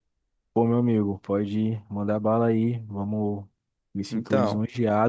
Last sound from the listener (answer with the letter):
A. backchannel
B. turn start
A